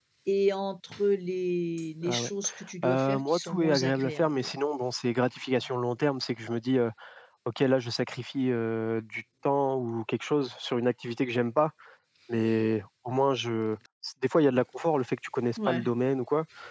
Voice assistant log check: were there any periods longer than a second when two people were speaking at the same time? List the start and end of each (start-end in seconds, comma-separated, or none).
2.8-4.6